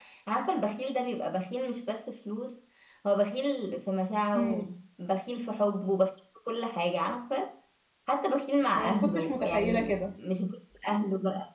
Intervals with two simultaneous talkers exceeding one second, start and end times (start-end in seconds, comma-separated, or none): 8.7-10.0